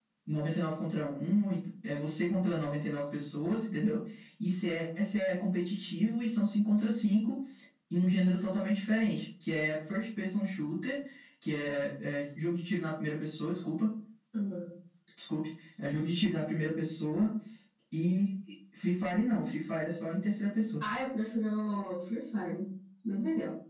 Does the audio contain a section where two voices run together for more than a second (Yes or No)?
No